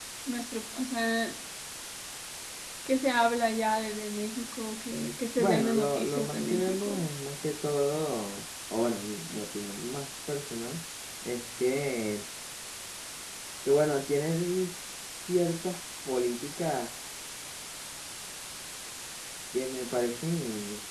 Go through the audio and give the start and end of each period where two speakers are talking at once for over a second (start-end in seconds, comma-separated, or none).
5.4-7.1